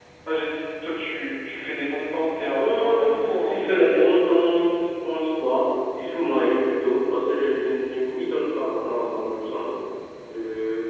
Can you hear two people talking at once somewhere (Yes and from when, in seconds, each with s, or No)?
Yes, from 2.6 s